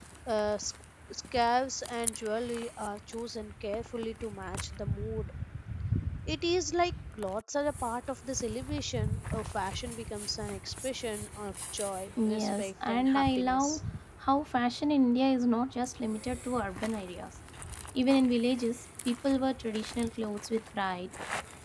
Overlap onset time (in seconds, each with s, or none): 12.2 s